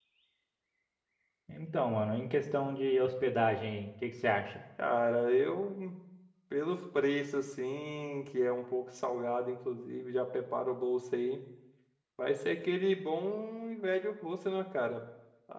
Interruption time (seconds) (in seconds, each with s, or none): none